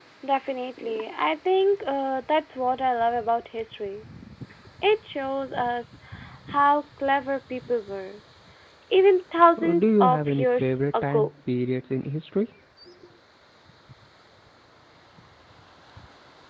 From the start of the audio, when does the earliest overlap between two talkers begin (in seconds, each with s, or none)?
9.6 s